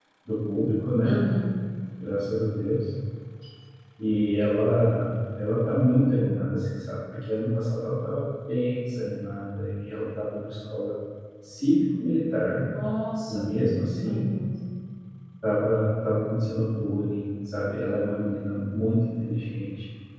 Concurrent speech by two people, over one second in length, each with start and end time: none

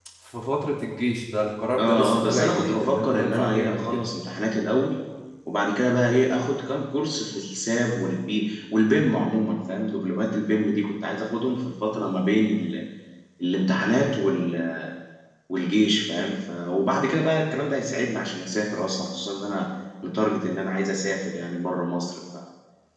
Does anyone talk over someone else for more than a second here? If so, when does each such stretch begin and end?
1.8-4.0

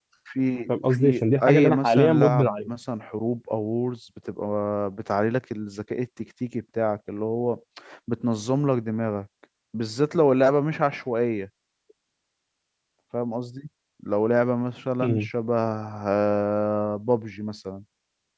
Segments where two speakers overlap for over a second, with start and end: 0.7-2.7

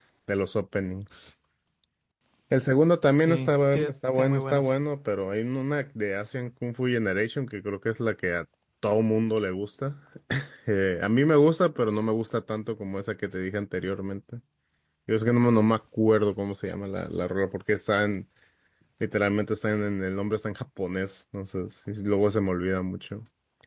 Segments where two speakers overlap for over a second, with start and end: 3.1-4.7

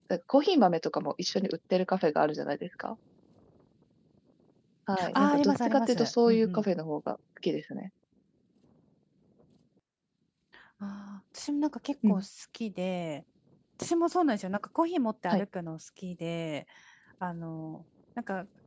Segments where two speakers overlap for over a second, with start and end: 5.2-6.6

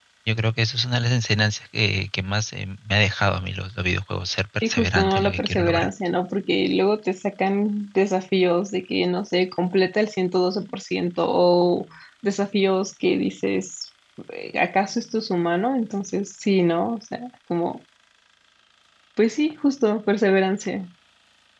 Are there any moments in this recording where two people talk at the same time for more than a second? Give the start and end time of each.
4.6-5.9

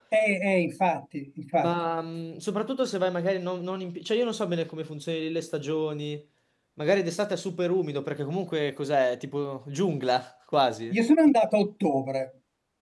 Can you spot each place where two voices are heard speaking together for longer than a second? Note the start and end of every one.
none

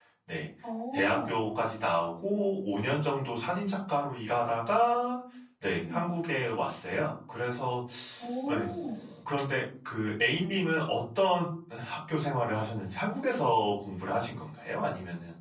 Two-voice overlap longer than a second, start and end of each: none

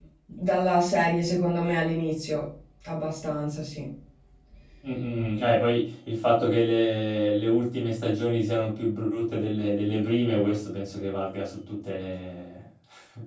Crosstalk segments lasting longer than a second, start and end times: none

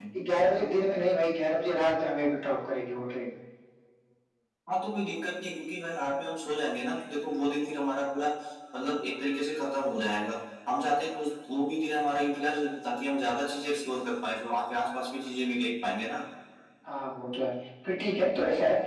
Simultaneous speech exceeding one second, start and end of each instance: none

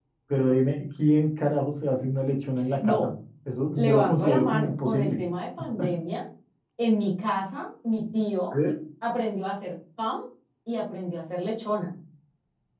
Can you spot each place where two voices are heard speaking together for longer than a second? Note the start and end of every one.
3.8-5.2

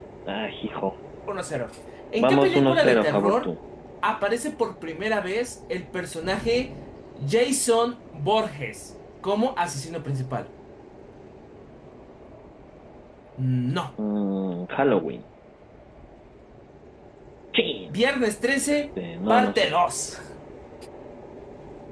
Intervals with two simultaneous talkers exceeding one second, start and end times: 2.2-3.5

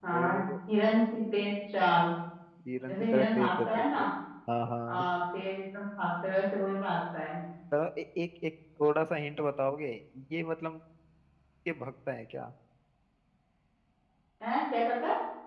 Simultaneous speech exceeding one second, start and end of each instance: 2.9-4.1

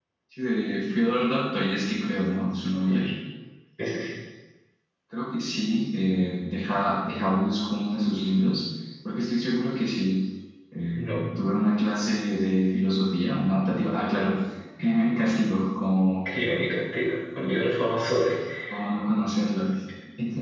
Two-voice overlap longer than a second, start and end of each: none

